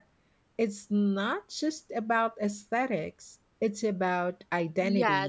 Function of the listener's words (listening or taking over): taking over